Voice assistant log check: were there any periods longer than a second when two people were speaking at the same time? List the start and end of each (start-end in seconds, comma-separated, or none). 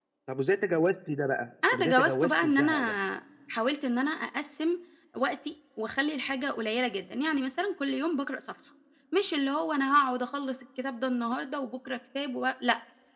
1.7-3.0